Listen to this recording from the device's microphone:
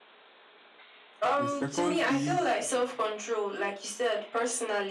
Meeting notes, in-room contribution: present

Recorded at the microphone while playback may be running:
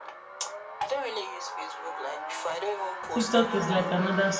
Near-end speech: present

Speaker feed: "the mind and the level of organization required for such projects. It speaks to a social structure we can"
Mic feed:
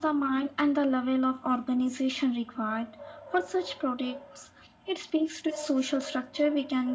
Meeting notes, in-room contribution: none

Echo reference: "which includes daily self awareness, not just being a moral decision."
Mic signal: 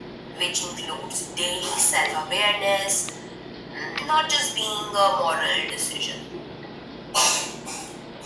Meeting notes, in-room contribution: none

